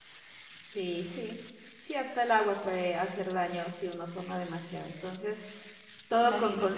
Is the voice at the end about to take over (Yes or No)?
No